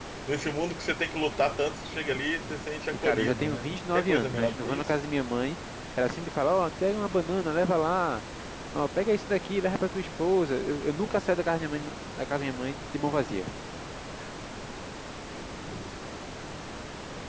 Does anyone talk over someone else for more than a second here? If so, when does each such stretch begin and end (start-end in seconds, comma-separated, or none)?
2.9-4.9